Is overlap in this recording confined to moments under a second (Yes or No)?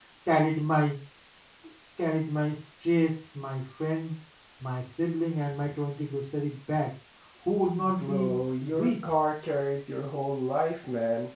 No